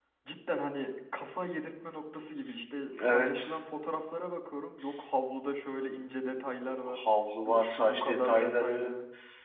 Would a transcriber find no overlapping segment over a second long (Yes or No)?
No